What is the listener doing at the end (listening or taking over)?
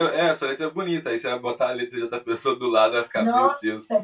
taking over